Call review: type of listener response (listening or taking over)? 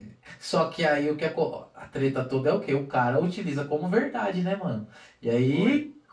listening